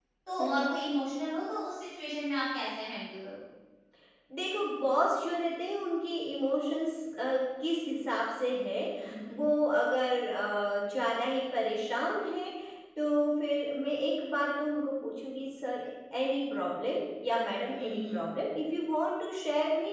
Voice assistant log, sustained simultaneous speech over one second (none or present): none